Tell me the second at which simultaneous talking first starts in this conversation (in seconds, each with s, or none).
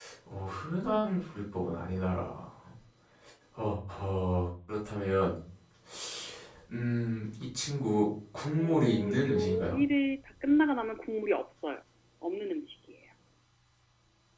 8.6 s